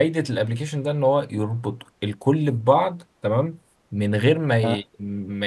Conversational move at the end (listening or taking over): listening